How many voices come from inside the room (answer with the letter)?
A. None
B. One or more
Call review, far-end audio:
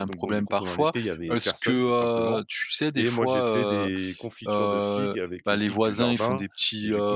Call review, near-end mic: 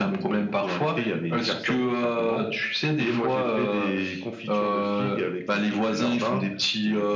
A